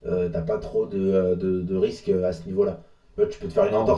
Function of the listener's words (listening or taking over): listening